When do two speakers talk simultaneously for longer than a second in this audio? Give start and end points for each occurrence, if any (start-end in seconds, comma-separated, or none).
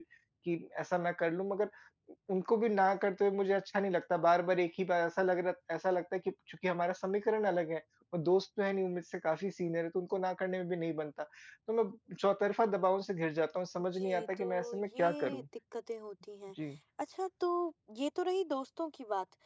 14.0-15.4